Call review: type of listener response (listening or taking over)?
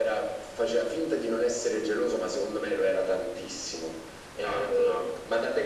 listening